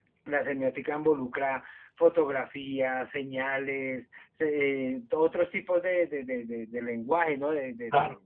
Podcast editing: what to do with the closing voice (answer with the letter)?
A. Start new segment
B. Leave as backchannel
A